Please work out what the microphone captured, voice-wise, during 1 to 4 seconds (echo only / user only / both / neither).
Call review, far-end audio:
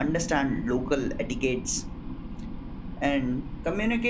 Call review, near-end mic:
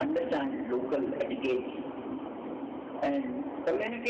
echo only